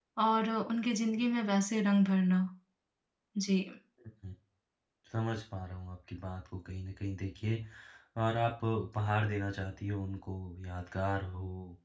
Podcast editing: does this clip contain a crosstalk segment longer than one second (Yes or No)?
No